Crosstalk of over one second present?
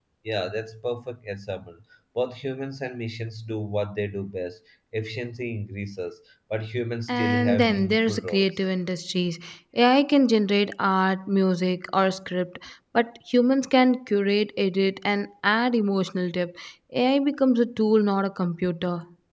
Yes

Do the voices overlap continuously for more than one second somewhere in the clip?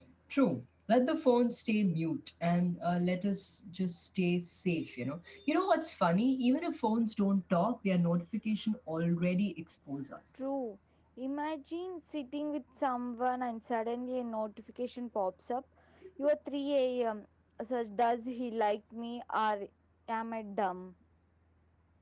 No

